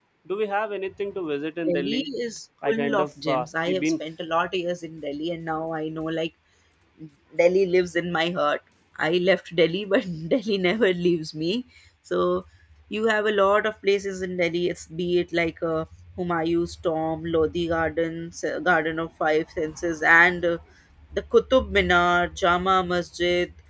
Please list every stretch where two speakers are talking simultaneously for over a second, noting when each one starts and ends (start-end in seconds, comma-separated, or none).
2.6-3.9